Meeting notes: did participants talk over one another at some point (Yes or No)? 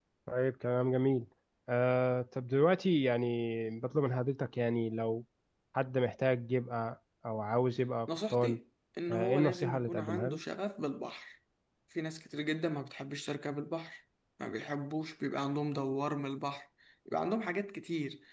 Yes